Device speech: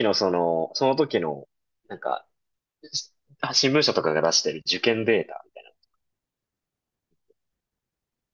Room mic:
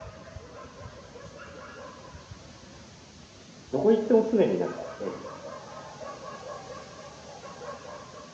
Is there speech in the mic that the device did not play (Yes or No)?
Yes